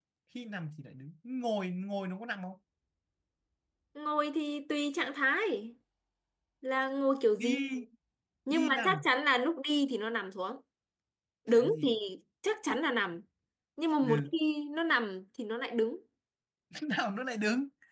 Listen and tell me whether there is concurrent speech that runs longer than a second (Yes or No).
No